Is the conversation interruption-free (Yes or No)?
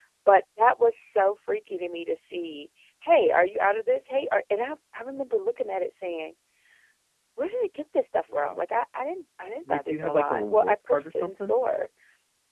No